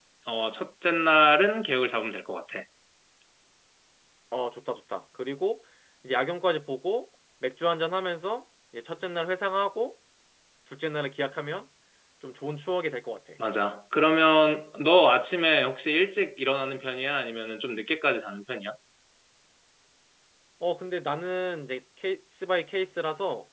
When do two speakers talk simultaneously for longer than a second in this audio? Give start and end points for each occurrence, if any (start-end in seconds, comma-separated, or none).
none